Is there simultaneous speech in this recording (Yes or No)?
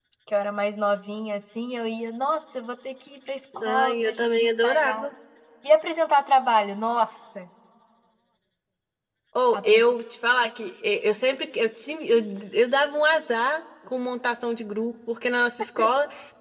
Yes